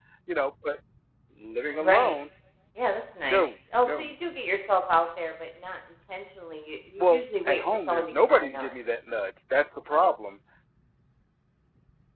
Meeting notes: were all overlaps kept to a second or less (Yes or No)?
No